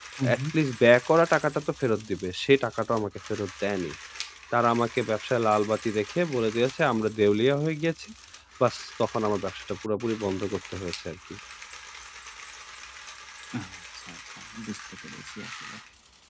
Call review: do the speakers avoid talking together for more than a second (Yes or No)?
Yes